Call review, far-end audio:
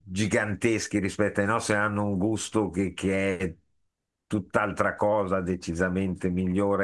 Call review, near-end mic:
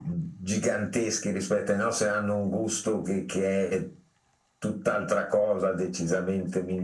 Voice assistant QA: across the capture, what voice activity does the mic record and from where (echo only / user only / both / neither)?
echo only